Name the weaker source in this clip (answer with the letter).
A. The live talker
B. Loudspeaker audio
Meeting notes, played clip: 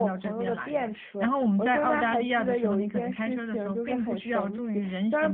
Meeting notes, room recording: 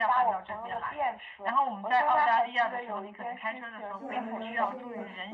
A